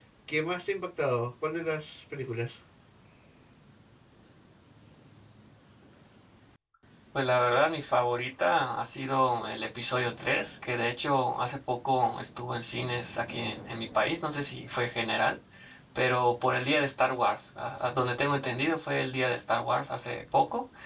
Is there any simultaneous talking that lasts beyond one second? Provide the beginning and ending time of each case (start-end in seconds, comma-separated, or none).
none